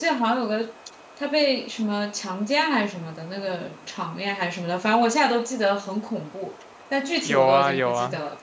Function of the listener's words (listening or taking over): taking over